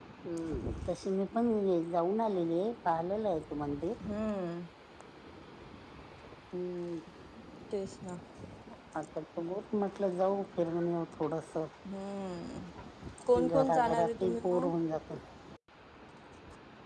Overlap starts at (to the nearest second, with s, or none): 13 s